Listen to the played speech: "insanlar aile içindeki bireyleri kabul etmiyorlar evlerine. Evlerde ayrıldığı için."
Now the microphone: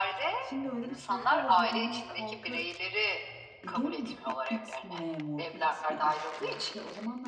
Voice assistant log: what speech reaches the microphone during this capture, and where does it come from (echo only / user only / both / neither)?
both